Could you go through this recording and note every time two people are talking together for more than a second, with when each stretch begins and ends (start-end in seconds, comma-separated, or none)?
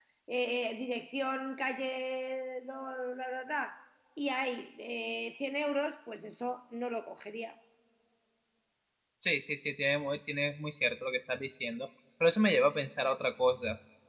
none